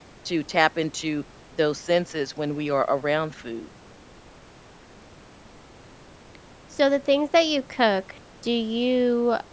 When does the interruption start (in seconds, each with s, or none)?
none